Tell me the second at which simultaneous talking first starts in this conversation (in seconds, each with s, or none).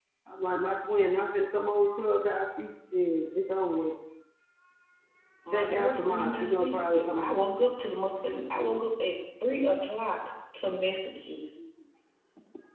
5.5 s